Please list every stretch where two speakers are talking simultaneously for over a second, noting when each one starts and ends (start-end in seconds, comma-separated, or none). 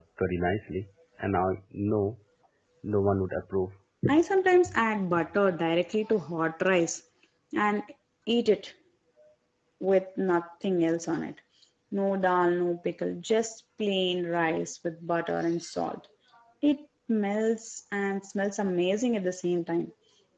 none